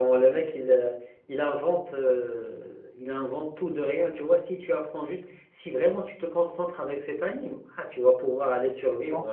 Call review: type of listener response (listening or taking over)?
taking over